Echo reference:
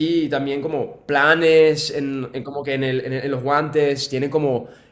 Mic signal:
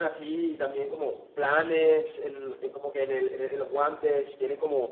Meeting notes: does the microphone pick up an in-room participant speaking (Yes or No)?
No